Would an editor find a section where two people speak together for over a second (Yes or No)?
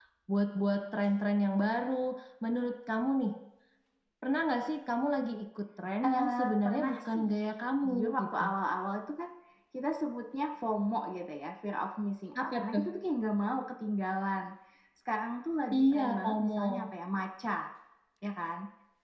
Yes